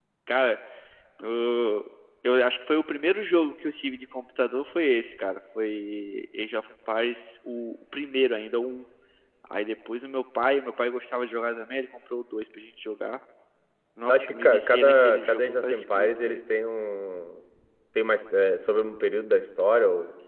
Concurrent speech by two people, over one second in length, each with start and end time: 14.1-16.4

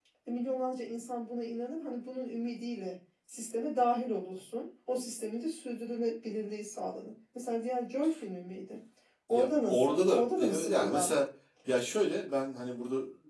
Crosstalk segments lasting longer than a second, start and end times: 9.3-11.2

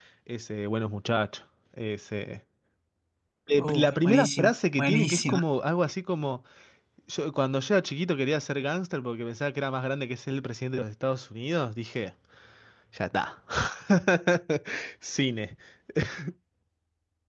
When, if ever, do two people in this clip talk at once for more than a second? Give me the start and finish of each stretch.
3.6-5.4

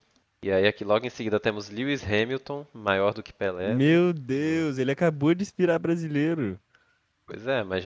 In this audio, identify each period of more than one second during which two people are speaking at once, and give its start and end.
none

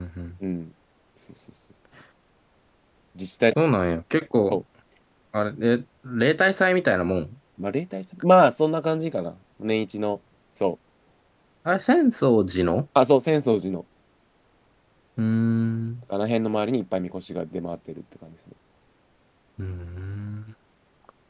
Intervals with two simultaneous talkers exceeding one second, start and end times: none

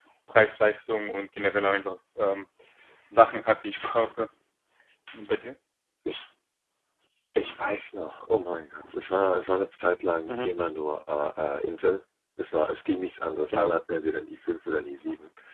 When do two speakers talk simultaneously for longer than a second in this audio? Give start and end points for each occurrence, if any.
none

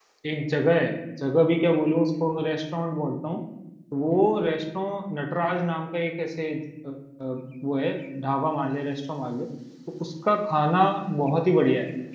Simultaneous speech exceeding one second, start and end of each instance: none

